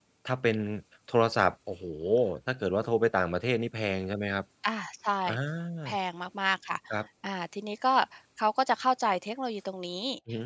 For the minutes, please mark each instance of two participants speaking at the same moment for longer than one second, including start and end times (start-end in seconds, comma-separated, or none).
none